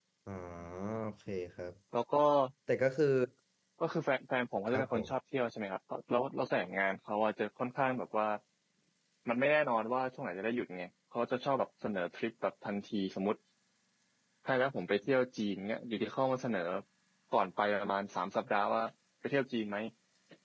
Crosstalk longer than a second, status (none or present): none